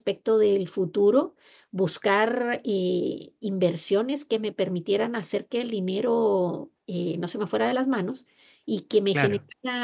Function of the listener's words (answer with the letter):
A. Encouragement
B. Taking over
A